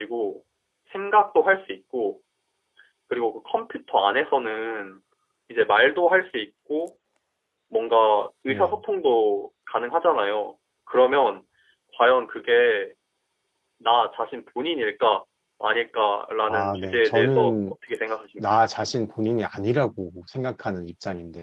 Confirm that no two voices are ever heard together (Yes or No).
No